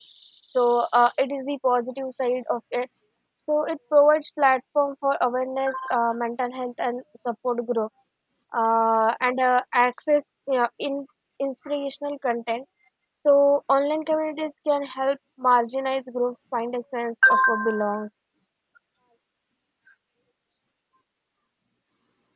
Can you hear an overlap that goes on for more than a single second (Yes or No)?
No